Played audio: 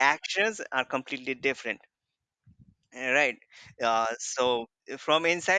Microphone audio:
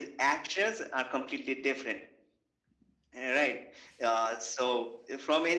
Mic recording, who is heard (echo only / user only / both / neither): echo only